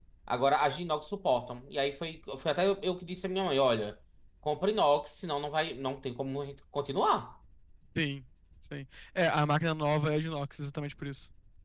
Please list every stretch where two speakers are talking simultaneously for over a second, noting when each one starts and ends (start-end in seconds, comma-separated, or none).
none